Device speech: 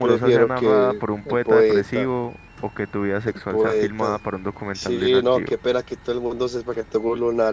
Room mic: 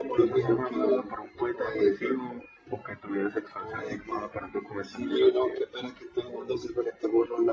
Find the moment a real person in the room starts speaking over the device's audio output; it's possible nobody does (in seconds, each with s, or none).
none